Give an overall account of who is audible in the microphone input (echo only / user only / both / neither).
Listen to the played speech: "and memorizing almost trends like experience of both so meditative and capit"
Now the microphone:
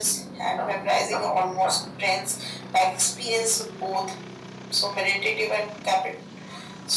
echo only